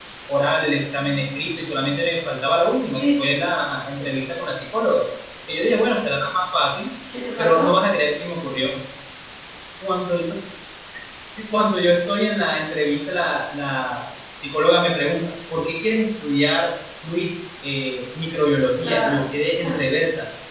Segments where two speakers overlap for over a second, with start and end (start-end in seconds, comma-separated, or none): none